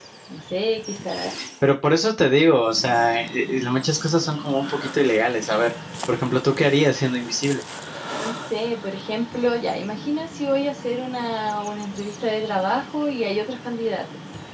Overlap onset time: none

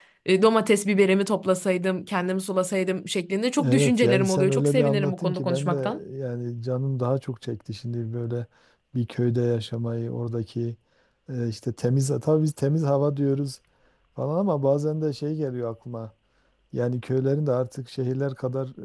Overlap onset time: 3.6 s

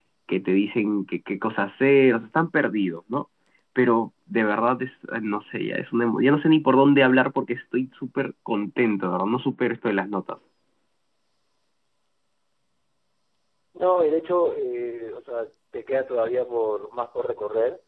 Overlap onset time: none

